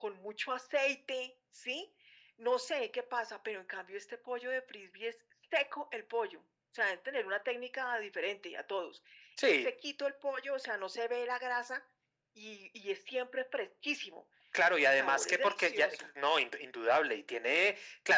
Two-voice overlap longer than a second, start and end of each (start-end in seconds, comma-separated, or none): 14.8-16.1